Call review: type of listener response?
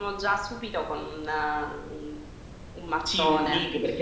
taking over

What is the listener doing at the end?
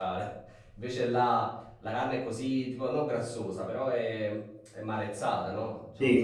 listening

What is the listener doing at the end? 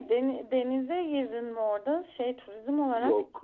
taking over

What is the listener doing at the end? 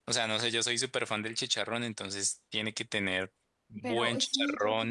taking over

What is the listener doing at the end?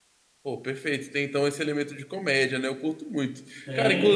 taking over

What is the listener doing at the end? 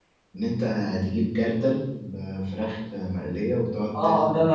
taking over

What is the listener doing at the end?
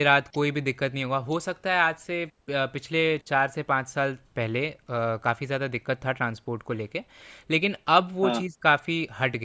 listening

